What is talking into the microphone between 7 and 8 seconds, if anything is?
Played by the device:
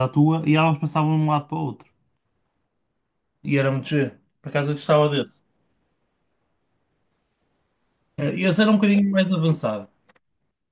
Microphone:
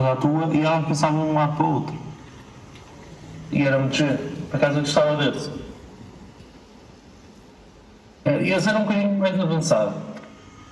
neither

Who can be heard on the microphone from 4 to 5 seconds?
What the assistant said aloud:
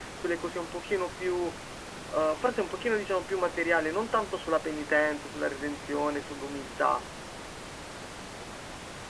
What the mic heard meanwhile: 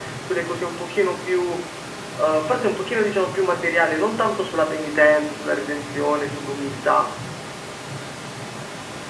echo only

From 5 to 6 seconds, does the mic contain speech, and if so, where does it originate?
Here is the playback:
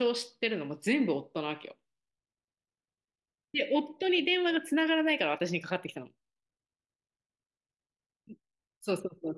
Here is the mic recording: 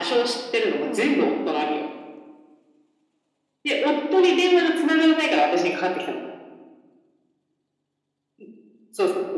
echo only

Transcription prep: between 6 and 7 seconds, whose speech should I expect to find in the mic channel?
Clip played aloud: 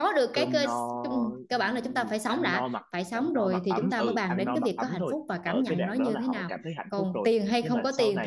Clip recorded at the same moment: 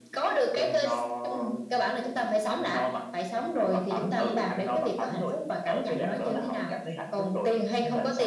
echo only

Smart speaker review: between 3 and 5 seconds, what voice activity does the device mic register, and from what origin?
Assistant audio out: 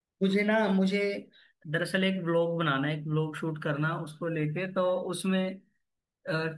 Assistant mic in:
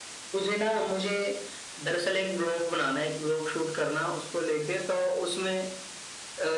echo only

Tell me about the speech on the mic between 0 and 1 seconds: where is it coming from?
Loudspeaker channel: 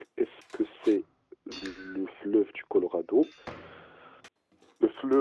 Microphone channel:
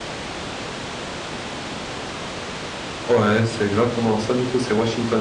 neither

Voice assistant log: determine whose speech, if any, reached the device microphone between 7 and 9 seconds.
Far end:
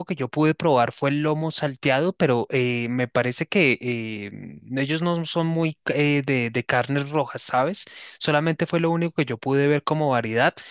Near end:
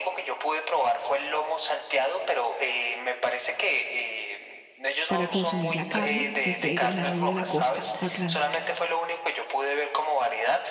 both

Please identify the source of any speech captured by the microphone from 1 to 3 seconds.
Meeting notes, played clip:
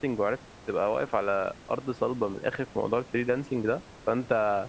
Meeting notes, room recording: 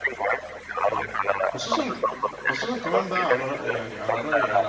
both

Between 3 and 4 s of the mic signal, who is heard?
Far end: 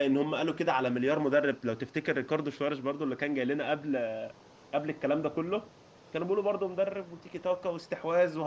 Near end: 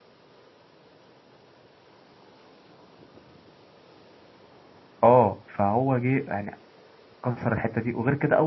neither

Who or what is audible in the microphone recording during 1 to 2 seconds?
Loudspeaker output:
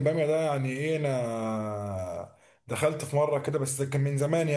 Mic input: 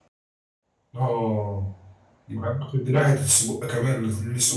user only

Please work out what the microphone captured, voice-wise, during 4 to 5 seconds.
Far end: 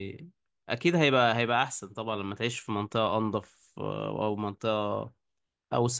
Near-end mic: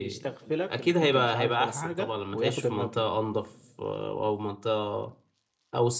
echo only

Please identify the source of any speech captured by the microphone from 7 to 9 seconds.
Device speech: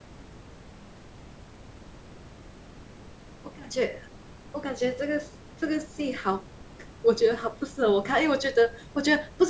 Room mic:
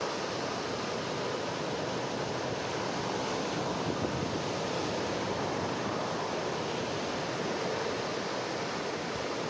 neither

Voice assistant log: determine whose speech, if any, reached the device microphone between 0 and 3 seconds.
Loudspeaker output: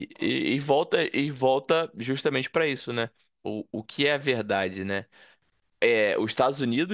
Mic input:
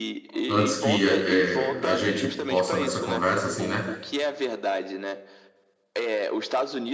both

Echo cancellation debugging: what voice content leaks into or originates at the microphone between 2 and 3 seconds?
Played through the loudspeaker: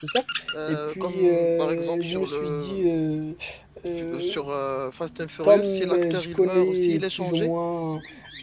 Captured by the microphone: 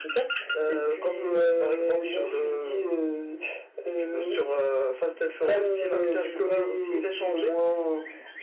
echo only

